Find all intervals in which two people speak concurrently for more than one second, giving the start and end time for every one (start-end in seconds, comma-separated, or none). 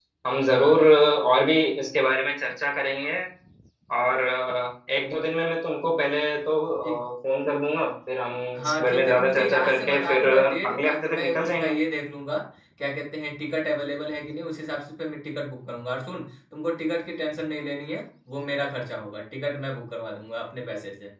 8.6-11.8